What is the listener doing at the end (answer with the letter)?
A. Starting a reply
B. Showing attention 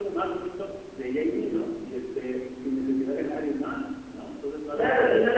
A